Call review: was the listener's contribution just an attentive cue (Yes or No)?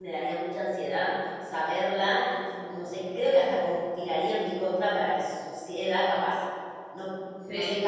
Yes